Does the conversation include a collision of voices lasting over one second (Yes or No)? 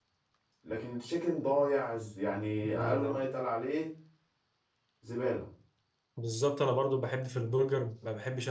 No